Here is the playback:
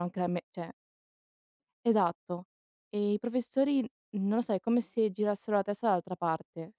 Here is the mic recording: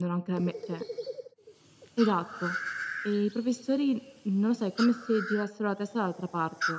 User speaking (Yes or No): No